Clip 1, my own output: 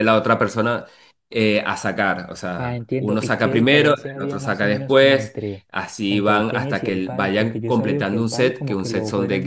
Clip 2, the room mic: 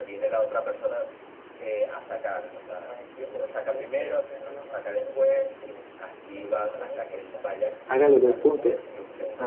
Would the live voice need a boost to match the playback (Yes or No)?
No